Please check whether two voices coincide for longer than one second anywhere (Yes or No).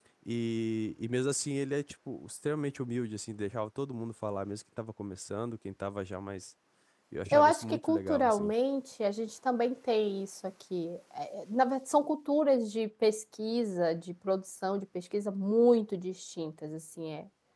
Yes